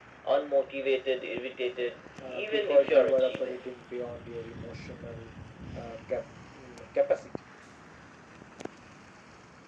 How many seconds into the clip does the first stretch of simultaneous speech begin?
2.2 s

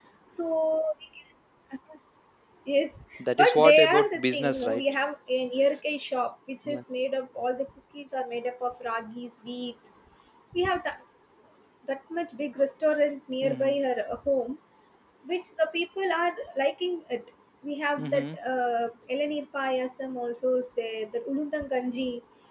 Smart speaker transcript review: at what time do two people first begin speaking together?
3.2 s

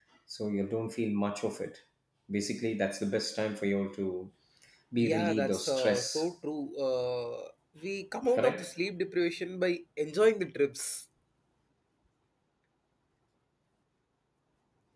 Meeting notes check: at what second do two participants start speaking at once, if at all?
5.0 s

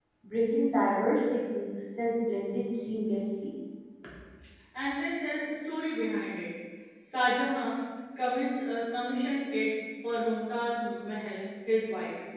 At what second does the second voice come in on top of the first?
none

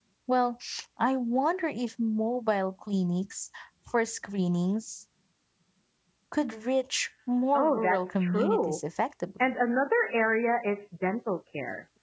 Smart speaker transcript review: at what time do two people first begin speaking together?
7.5 s

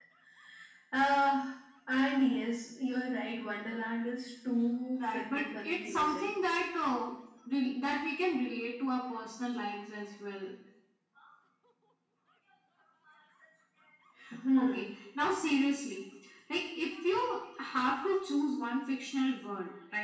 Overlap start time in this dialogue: 5.0 s

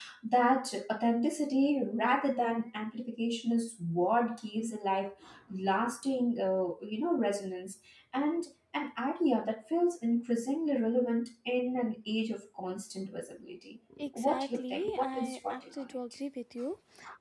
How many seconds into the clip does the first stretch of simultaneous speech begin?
13.9 s

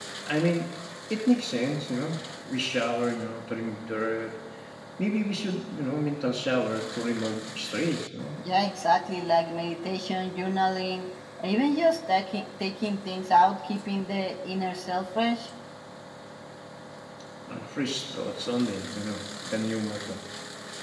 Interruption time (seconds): none

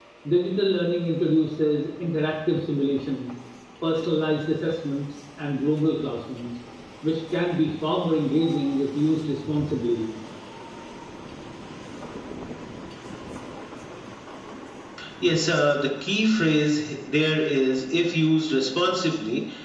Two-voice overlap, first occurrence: none

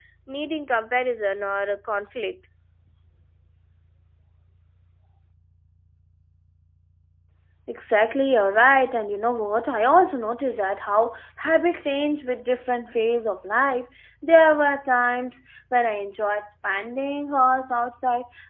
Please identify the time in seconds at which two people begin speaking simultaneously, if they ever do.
none

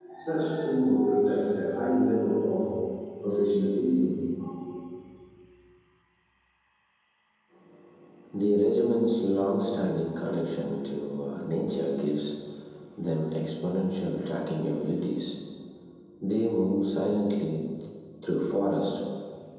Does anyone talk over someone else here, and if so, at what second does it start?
none

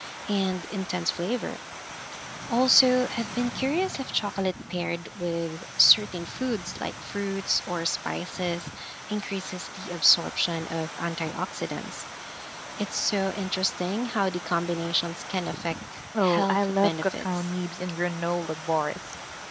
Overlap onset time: 16.1 s

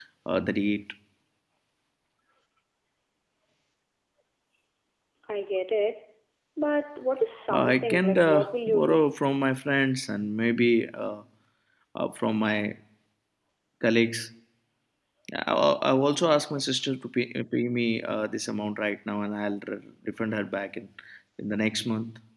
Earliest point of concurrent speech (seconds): 7.5 s

